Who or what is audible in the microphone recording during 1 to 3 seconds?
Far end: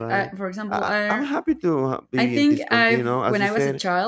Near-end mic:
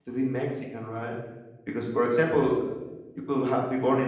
user only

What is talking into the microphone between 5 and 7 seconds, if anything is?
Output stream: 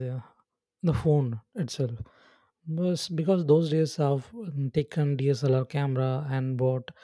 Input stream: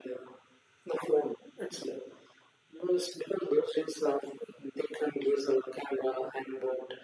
echo only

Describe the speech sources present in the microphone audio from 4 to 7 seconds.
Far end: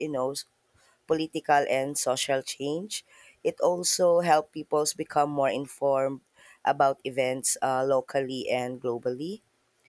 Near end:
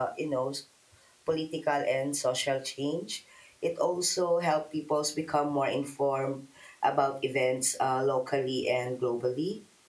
echo only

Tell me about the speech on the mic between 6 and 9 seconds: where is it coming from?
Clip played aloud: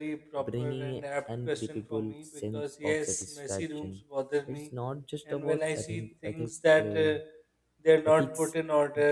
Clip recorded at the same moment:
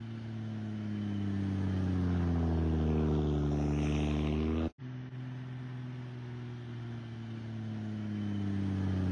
neither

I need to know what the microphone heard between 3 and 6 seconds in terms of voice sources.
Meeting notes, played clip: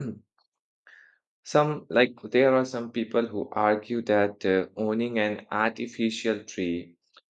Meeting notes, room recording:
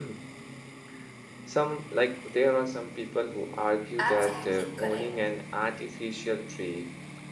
both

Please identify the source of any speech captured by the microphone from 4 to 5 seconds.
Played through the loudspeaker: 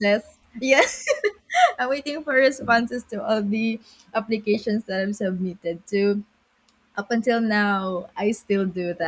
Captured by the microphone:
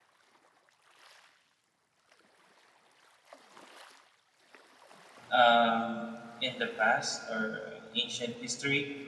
neither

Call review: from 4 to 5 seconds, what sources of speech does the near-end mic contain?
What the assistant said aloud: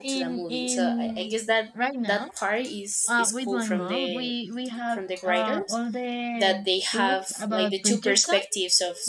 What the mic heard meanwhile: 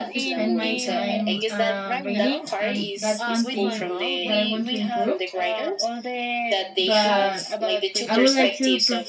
both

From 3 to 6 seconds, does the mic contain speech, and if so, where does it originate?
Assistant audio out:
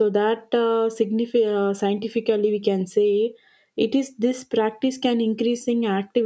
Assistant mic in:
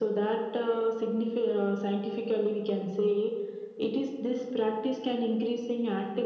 echo only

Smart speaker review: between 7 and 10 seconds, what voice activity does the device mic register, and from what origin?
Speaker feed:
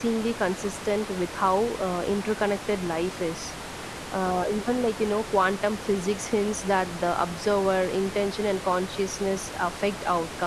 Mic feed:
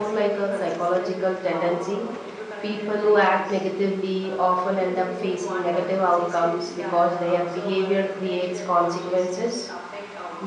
both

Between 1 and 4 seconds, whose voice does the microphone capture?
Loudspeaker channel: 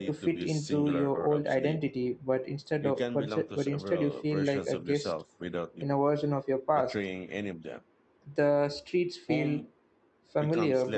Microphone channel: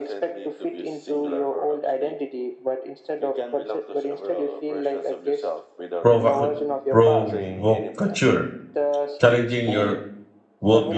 echo only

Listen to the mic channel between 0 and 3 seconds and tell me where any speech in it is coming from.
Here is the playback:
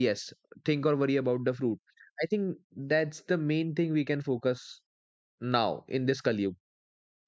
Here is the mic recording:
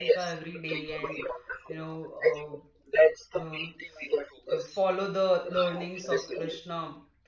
both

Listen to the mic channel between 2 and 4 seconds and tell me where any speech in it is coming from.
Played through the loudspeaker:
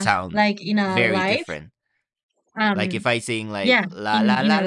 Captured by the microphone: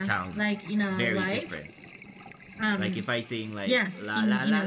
echo only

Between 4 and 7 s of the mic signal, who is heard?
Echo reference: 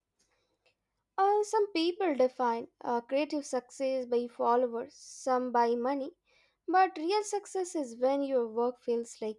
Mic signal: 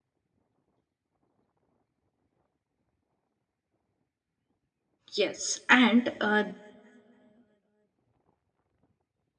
user only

